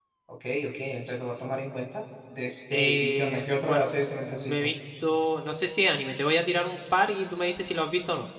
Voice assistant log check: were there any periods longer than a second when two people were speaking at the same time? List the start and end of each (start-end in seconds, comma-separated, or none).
2.7-3.9